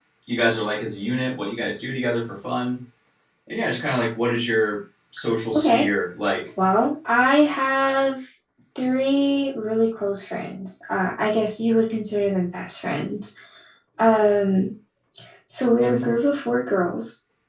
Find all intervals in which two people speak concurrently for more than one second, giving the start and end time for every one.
none

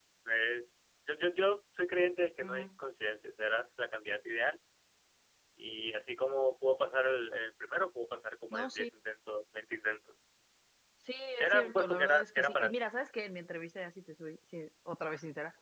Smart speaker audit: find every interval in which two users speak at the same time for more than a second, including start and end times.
11.4-12.8

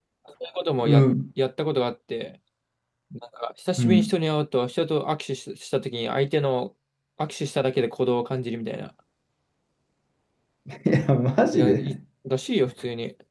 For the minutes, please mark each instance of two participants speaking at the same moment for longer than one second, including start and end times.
none

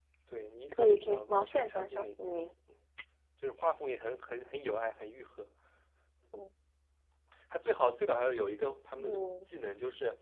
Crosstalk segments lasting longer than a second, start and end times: 0.7-2.1

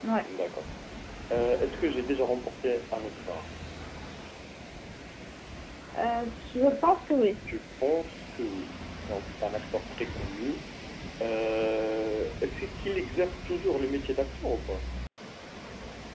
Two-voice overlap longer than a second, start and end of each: none

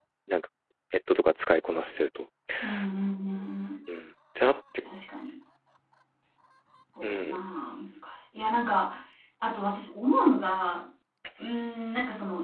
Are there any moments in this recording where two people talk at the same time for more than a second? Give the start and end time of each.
none

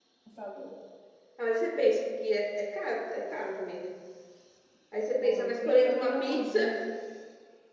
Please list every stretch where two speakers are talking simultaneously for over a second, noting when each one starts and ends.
5.2-6.6

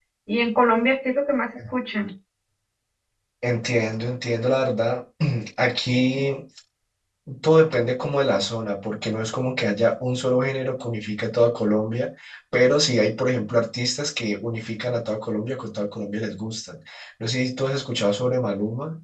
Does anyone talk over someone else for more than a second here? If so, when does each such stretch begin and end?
none

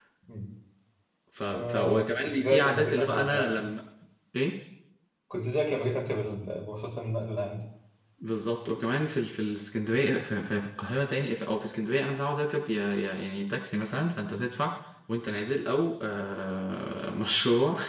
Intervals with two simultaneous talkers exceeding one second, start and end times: 1.5-3.7

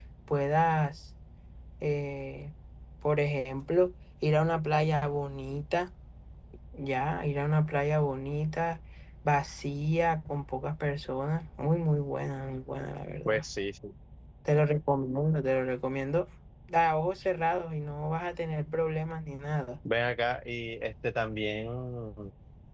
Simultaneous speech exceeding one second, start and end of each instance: none

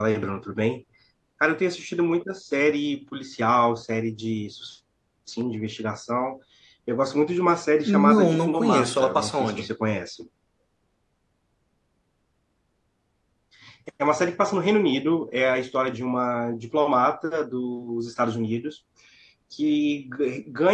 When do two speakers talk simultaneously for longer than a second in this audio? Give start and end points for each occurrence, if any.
7.8-9.7

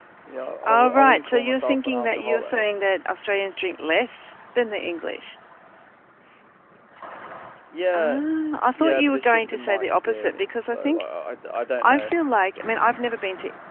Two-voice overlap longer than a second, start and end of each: 0.6-2.6, 8.8-11.1

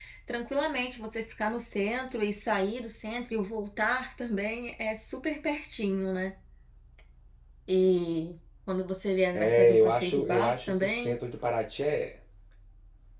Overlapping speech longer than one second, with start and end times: 9.3-11.1

